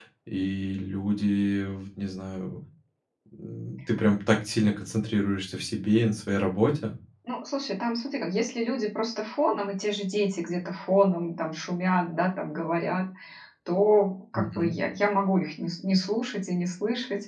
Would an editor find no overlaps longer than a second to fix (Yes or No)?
Yes